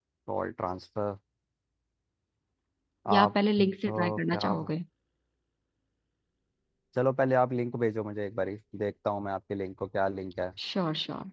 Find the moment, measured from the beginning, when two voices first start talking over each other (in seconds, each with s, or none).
3.1 s